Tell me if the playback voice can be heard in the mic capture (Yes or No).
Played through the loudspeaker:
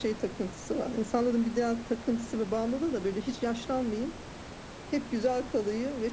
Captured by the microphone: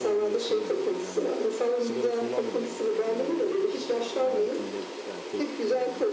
Yes